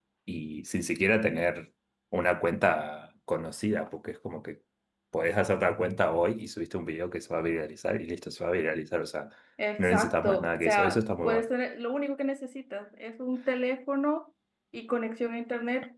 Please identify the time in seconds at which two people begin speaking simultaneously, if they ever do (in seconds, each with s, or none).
9.8 s